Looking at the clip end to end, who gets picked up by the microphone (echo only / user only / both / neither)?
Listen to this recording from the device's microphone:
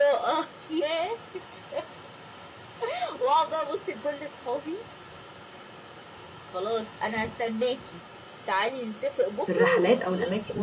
both